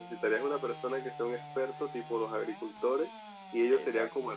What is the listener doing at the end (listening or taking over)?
listening